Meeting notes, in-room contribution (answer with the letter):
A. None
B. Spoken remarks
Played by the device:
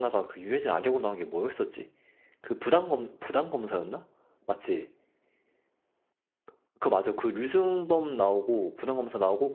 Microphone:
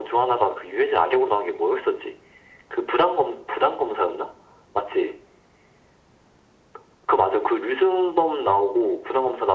A